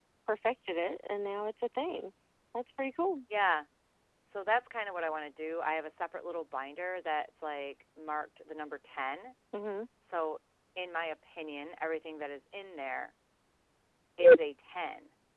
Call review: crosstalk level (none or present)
none